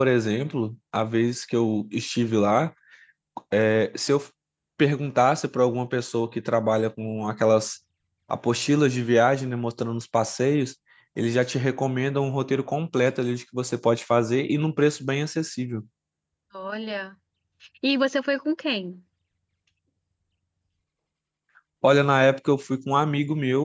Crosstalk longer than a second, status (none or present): none